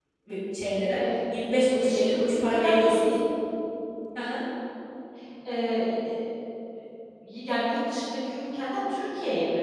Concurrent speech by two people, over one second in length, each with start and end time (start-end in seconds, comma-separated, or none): 1.7-3.1